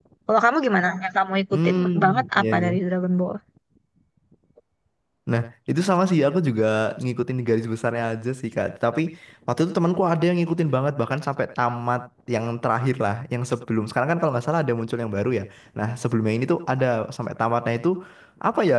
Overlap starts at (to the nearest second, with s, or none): 2 s